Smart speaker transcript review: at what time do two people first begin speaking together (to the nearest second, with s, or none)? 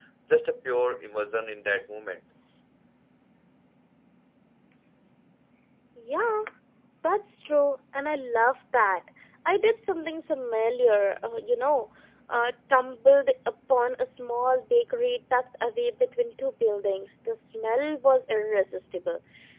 none